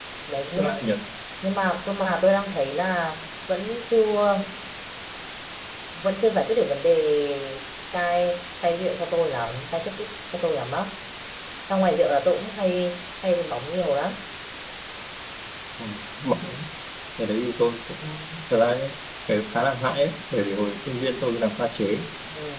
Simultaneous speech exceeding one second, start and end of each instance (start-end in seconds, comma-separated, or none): none